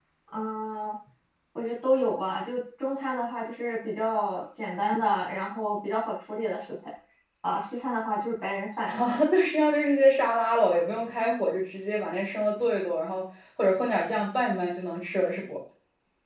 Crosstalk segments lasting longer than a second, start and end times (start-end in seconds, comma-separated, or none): none